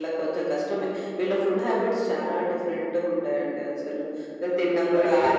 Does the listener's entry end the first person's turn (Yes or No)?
Yes